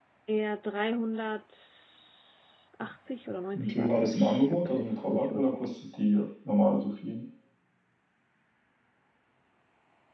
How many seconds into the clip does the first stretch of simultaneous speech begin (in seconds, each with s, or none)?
3.5 s